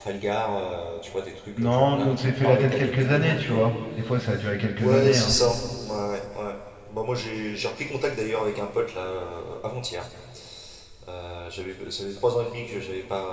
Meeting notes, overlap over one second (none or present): present